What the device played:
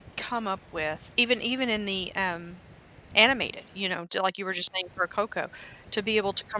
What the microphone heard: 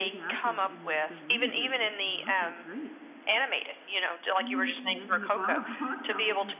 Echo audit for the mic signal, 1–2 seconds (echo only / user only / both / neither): both